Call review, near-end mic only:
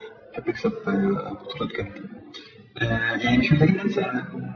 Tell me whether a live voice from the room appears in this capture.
No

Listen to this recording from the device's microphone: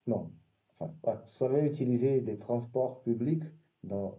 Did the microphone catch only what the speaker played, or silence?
No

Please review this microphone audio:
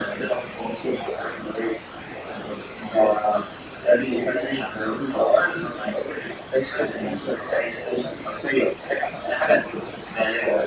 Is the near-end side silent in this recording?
Yes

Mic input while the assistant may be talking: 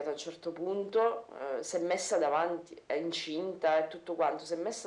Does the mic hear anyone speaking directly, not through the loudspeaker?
No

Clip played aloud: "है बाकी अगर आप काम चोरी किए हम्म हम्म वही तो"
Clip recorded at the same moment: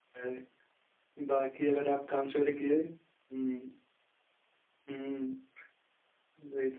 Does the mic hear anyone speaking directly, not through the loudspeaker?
No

